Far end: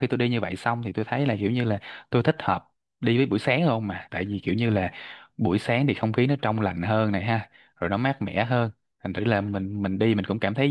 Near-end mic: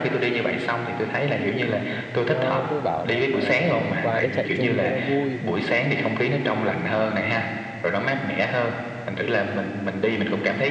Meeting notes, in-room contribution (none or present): present